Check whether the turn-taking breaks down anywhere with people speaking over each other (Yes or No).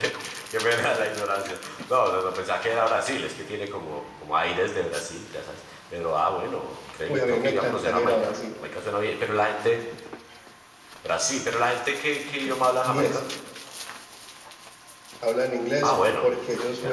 Yes